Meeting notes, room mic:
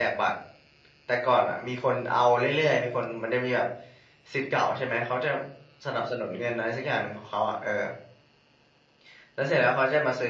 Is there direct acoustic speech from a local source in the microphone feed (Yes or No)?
Yes